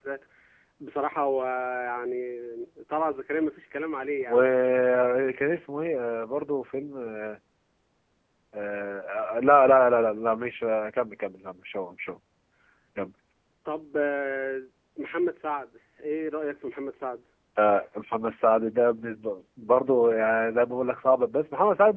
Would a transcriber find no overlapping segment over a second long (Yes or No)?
Yes